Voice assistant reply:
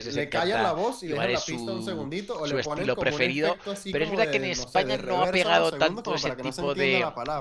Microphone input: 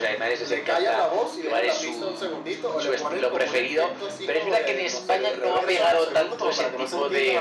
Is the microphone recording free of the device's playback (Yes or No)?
No